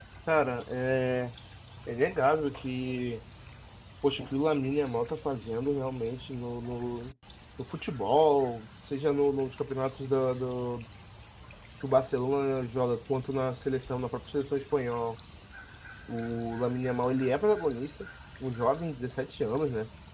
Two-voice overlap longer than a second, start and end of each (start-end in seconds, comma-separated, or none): none